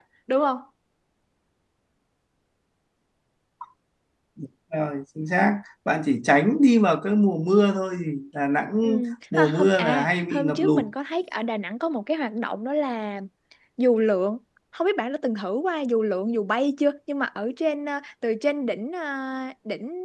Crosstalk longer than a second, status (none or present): present